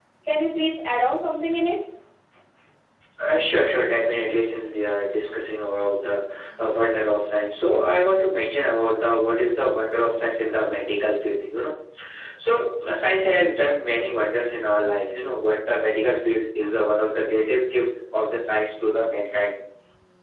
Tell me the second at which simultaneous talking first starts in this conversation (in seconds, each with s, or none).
none